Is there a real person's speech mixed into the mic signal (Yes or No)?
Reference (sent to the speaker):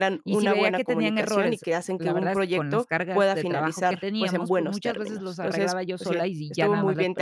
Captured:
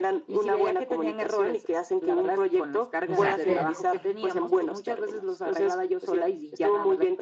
Yes